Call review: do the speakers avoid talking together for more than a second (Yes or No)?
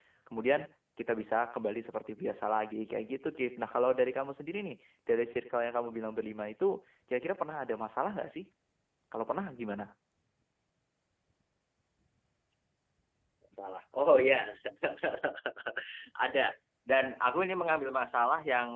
Yes